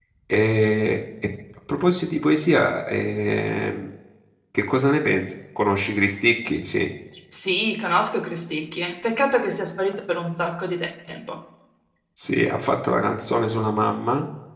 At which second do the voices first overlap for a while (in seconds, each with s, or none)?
none